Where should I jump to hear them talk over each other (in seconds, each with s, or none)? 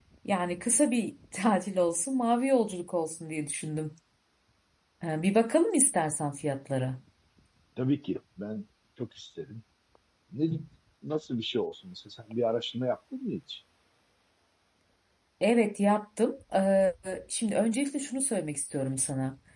none